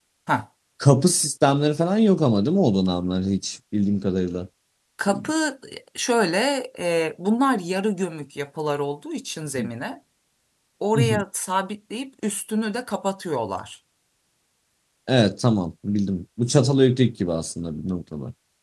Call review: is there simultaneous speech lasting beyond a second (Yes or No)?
No